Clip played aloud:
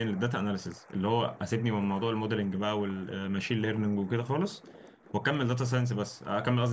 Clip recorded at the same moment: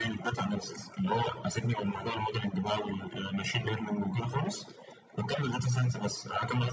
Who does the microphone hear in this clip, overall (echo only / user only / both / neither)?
echo only